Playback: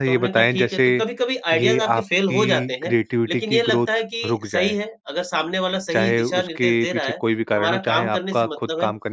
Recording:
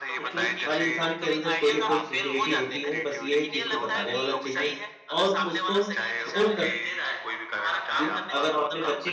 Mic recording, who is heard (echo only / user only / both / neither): both